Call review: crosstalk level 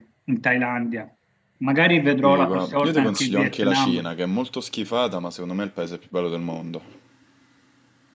present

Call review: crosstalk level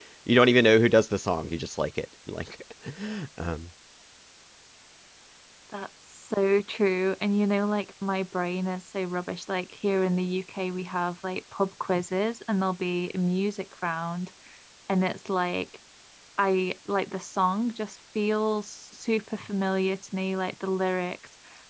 none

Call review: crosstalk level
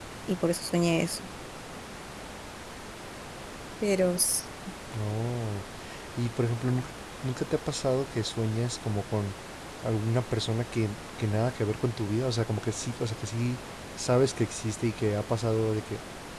none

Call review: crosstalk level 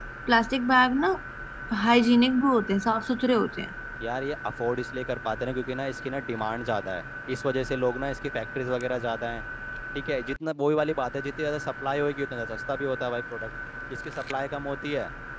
none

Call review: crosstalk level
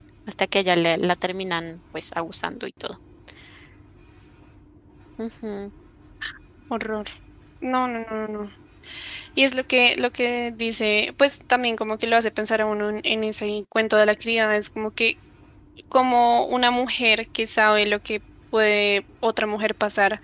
none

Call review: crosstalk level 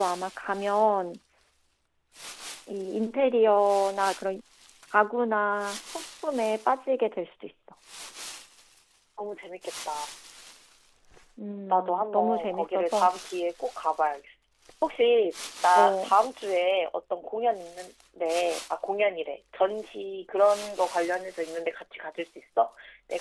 present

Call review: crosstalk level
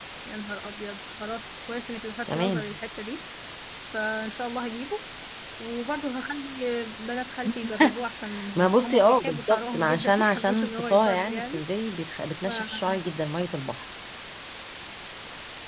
present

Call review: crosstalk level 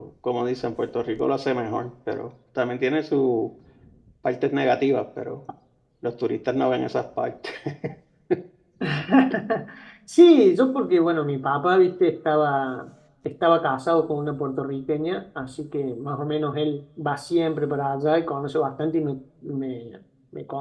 none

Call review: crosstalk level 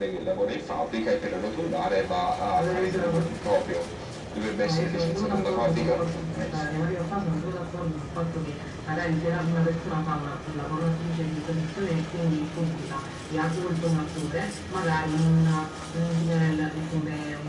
present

